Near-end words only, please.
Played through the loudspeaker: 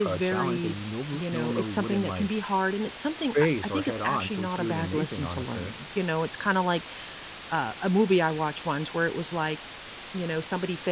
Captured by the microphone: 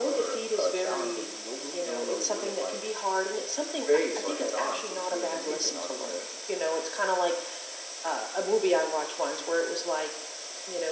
none

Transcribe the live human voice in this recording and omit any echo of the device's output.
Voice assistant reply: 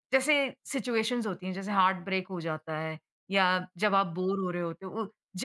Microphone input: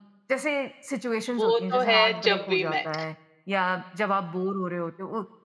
वो तो है जब वी मेट

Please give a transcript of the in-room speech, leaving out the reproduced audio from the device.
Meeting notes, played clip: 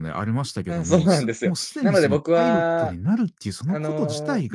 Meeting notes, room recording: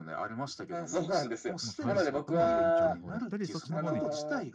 まあ、パイロットの勉強の方だったり、そっちの方に

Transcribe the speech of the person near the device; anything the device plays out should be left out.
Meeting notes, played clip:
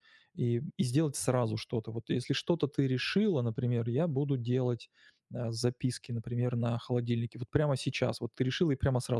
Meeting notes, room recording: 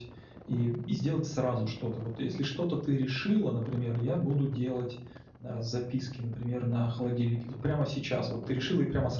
none

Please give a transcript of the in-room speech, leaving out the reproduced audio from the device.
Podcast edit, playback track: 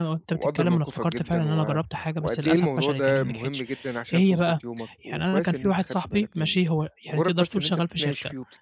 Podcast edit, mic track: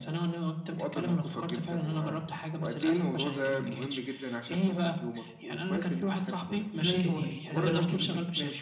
بانام كتير، ده بانام كتير،

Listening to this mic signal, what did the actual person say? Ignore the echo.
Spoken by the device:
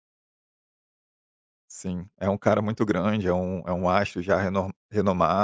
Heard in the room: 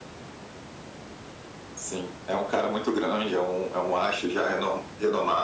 none

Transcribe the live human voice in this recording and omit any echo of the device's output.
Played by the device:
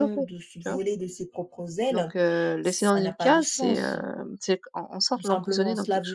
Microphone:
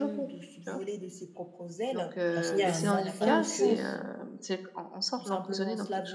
d'enseigner à un enfant que,

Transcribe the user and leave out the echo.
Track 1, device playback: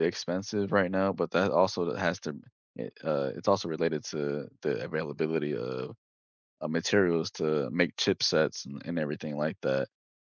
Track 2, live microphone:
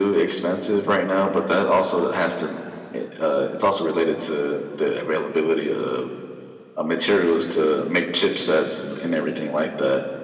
none

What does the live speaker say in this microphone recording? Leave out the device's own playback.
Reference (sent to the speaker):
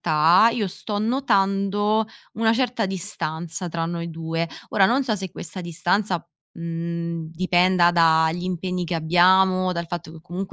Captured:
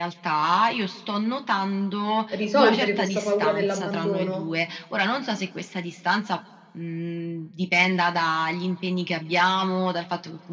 risolvere questa paura dell'abbandono.

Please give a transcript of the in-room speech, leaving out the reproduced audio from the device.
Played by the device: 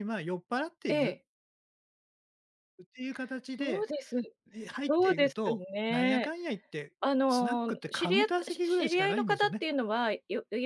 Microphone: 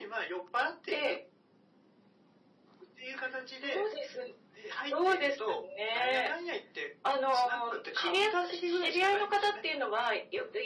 none

